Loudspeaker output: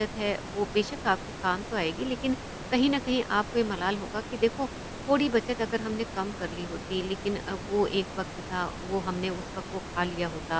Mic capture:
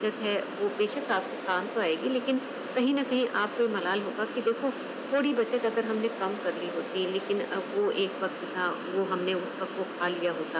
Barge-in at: none

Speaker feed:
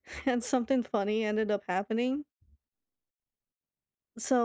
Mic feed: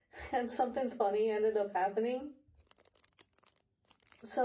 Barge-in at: none

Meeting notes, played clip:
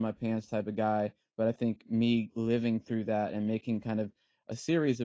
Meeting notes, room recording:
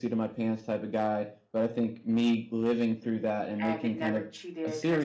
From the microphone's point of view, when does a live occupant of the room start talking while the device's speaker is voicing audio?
3.6 s

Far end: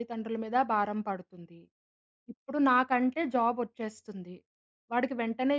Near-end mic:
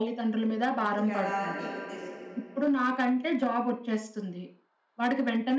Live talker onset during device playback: 0.8 s

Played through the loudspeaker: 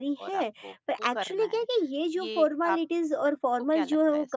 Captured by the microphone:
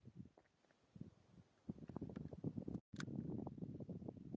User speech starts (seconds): none

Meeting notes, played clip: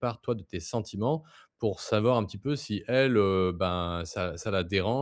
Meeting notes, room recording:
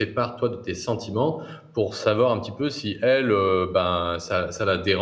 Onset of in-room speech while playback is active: none

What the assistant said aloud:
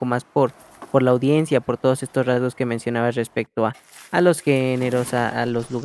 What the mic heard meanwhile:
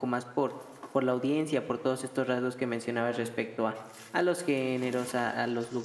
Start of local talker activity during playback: none

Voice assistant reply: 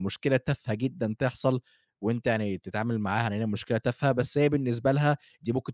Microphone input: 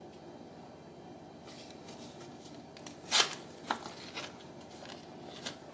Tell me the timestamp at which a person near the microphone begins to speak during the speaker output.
none

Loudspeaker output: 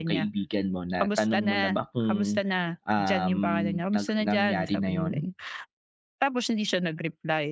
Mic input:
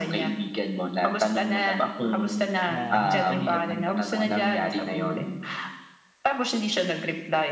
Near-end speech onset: 2.6 s

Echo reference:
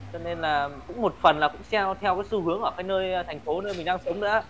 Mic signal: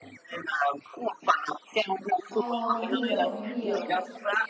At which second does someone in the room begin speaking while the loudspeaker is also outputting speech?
2.3 s

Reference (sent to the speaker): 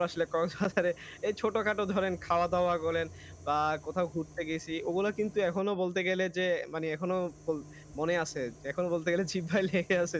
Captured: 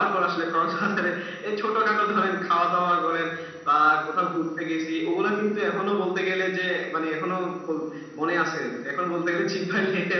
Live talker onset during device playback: none

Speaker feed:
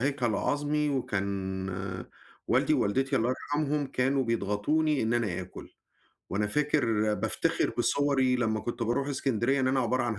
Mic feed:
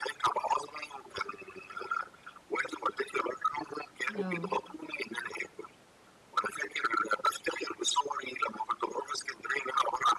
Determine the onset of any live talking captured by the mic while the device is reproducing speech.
4.2 s

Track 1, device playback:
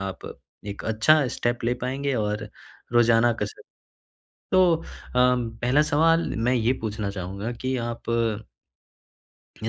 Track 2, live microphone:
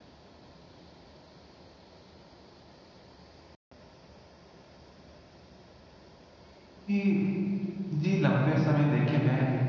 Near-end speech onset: 6.9 s

